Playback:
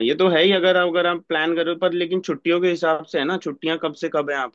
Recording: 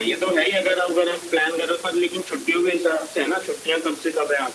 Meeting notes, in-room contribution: none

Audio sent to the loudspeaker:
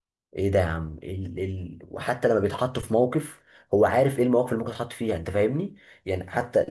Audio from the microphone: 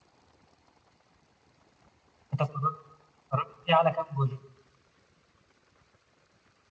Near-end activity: present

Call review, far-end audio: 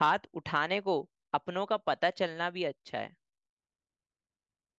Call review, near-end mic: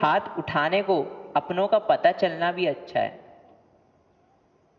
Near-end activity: none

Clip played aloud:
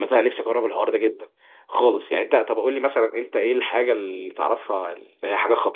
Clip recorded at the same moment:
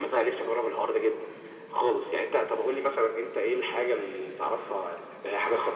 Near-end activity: none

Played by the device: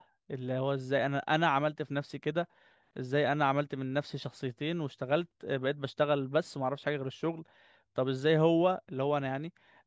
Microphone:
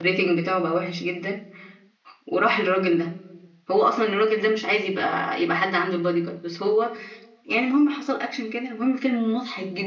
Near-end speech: present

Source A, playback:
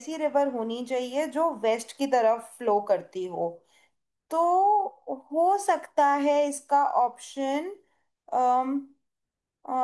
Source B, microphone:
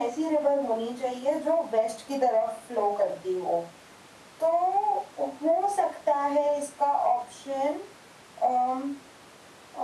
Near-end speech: none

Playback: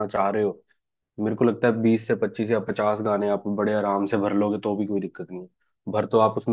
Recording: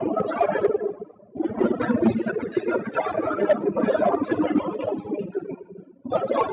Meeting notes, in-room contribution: present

